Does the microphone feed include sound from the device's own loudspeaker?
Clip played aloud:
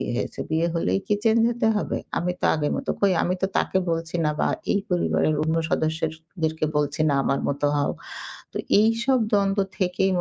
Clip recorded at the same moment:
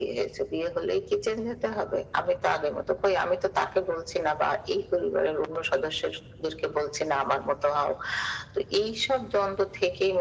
Yes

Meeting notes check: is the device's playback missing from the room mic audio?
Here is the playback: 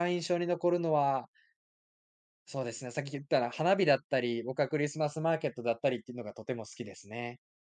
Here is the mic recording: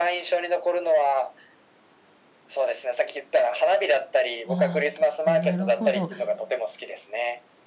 No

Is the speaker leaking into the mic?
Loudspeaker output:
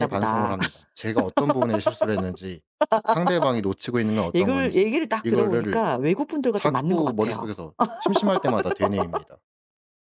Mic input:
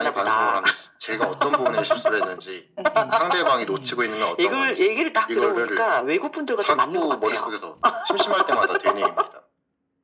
Yes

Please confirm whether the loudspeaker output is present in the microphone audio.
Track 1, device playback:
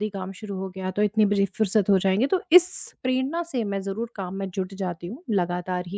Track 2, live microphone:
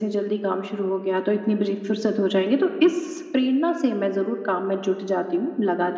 Yes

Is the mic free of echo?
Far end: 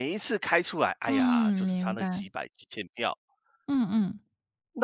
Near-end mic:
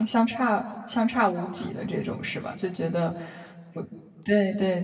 Yes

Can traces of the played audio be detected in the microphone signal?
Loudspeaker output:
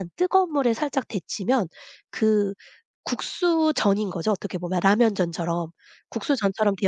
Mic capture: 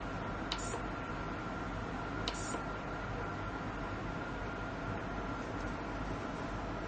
No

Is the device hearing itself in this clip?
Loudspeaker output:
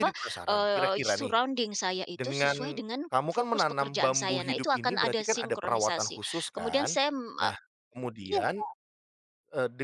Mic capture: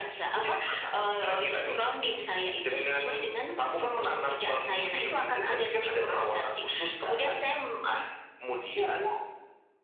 Yes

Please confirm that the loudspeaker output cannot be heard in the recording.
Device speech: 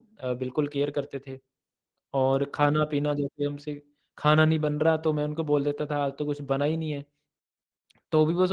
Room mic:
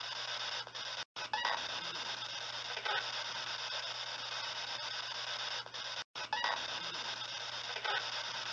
Yes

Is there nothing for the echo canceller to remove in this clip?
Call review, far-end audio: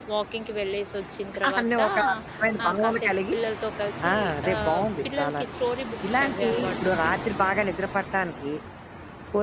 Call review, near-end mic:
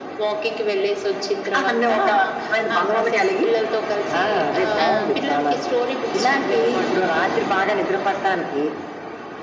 No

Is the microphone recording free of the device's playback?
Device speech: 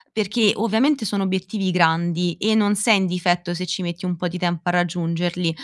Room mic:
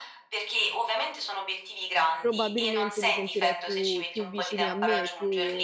No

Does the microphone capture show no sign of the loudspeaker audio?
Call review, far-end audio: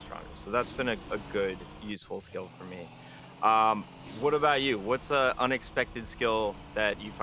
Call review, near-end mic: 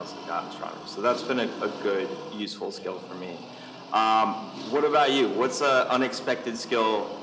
No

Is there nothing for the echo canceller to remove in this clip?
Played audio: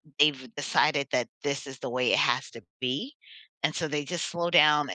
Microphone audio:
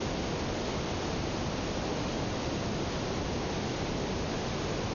Yes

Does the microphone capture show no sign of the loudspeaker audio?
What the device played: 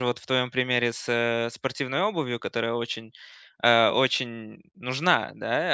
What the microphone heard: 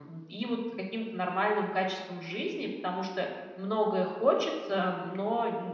Yes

